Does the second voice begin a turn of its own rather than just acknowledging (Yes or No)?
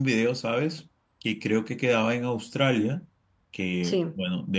No